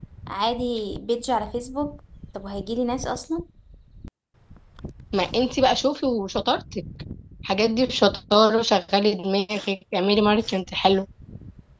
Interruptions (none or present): none